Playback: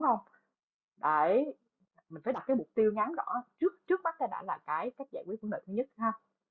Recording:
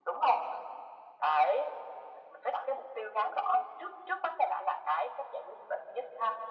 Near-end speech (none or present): none